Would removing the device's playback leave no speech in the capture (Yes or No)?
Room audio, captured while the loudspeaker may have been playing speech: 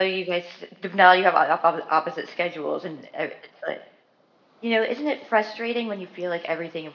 No